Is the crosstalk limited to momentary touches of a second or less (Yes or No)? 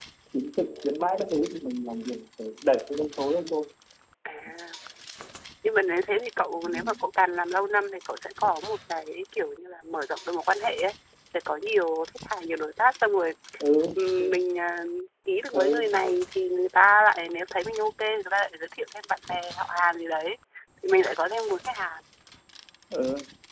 Yes